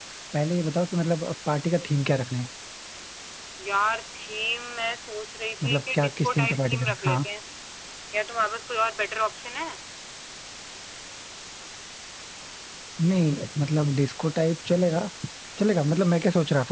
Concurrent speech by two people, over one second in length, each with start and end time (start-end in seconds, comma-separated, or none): 5.6-7.2